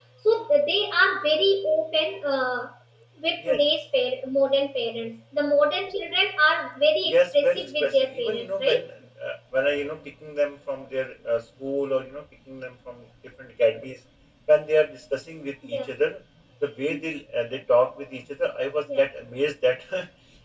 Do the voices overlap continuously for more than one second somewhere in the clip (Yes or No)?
Yes